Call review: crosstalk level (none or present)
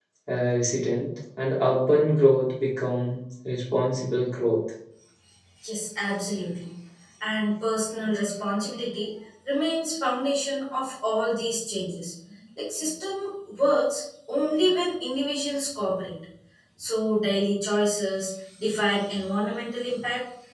none